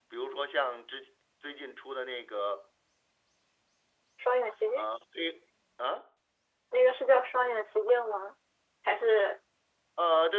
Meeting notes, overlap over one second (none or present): none